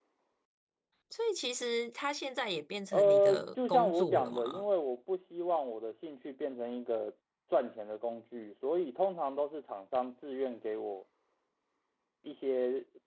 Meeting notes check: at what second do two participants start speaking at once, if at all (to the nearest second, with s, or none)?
3 s